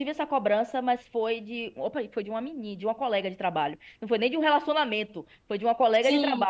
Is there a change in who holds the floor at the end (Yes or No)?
No